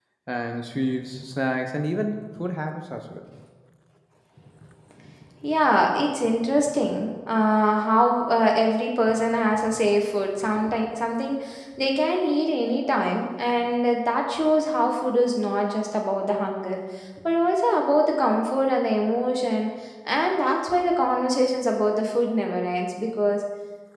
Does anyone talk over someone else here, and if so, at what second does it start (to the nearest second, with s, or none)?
none